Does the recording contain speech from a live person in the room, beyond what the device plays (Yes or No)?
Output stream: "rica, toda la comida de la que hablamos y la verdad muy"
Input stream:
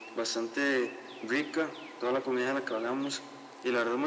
No